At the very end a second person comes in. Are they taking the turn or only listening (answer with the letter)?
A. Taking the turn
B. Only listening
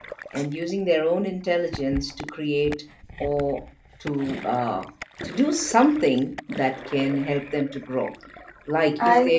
B